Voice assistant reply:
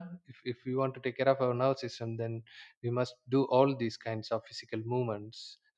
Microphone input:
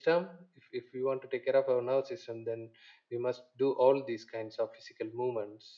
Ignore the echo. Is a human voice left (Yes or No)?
No